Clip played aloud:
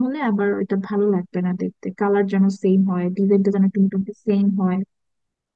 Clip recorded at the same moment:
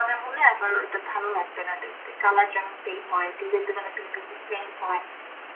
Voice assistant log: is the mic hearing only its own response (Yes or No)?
Yes